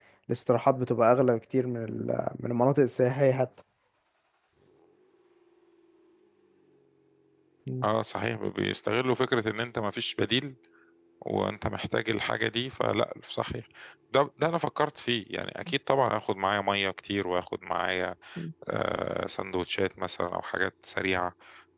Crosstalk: none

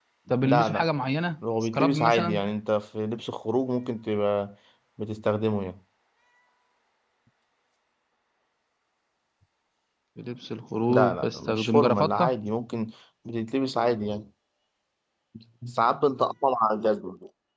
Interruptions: present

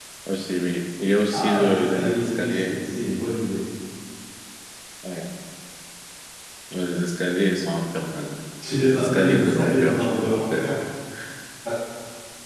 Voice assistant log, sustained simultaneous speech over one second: present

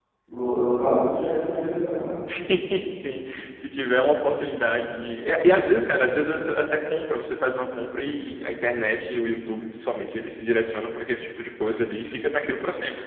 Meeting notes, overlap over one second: none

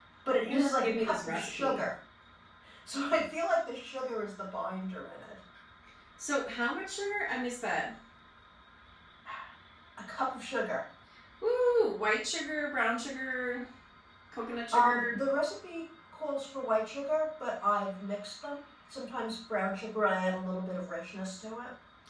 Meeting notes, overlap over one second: present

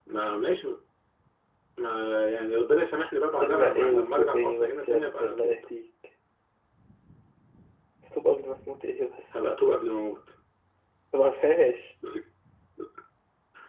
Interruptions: present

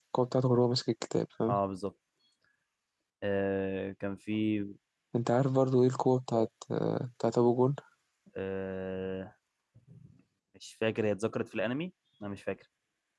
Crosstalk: none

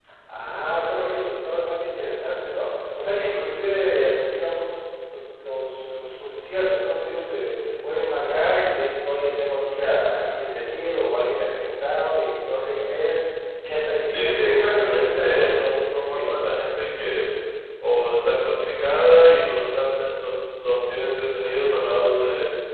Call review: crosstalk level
present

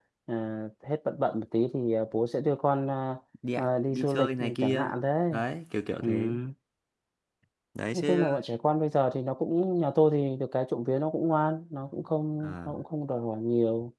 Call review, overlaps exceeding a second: present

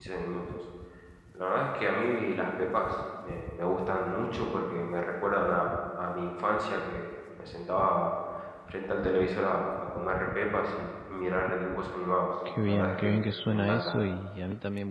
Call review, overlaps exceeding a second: present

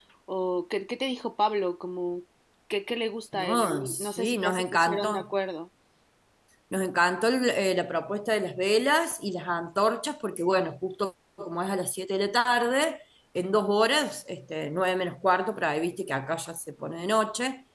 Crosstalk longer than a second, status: present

